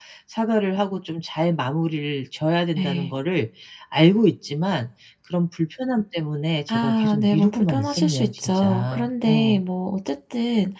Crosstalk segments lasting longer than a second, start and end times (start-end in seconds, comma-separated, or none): 6.7-9.6